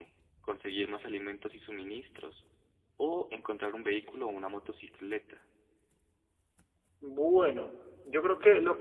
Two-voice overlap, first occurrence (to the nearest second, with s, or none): none